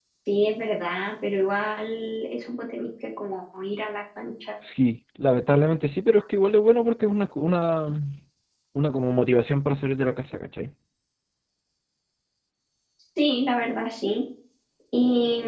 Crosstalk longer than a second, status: none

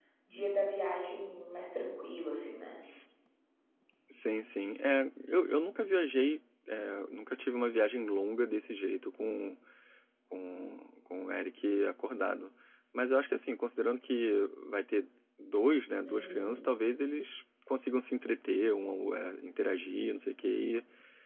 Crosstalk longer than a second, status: none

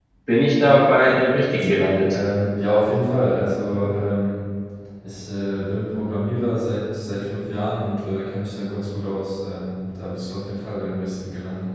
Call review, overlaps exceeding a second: none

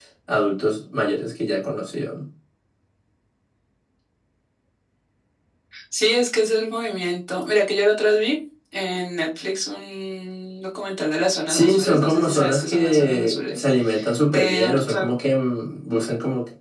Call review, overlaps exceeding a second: present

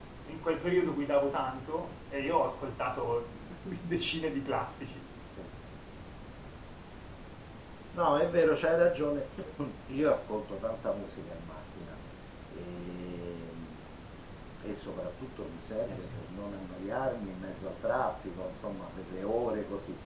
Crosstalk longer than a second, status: none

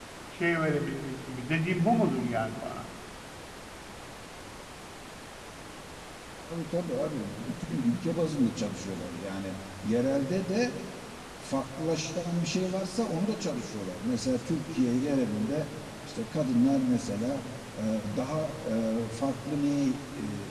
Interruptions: none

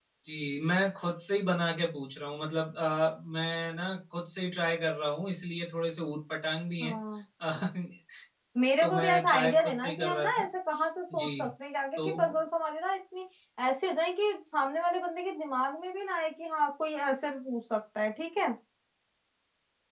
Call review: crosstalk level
present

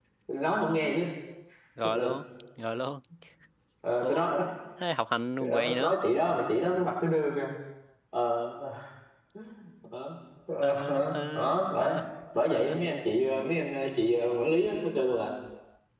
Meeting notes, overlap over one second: present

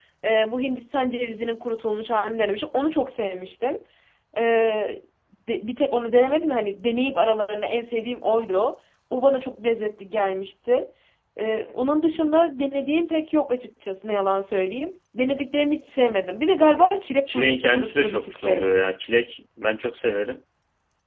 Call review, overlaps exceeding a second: present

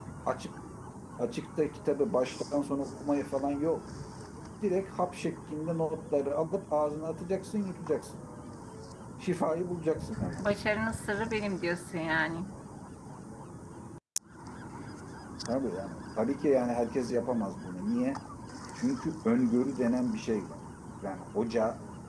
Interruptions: none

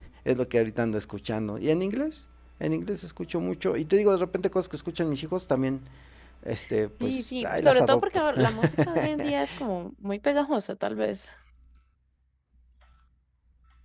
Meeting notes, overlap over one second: present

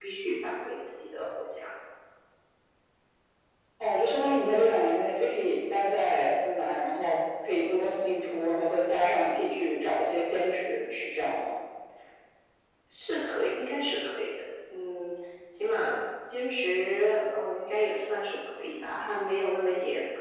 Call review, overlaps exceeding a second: none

